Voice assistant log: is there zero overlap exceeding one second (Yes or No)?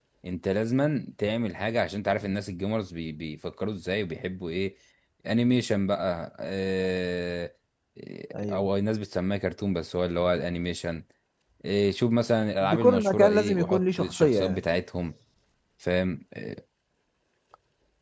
No